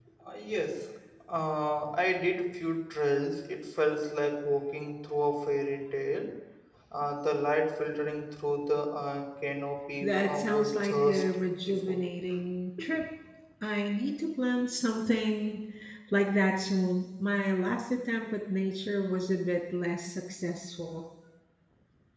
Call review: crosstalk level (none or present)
present